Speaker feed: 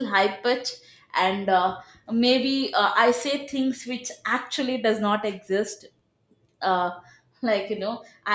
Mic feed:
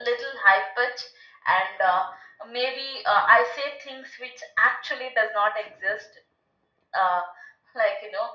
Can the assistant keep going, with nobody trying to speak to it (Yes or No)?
Yes